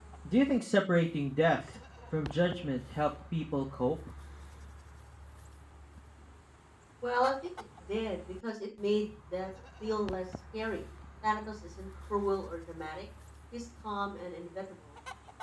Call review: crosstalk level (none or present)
none